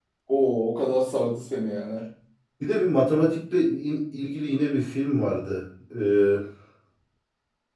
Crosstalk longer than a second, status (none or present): none